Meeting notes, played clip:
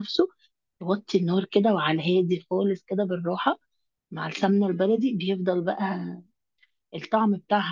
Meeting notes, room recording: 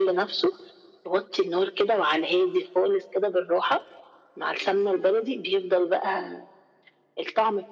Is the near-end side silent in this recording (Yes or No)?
Yes